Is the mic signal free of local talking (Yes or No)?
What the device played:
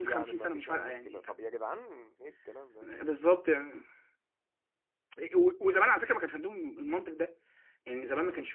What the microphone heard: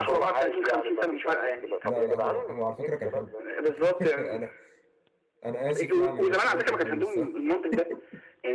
No